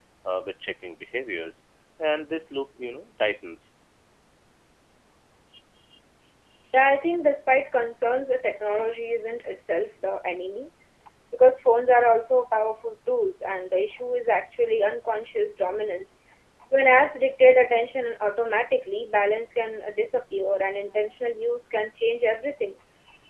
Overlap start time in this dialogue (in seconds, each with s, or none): none